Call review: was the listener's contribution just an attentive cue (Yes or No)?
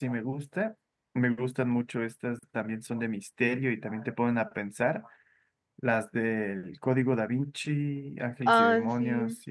Yes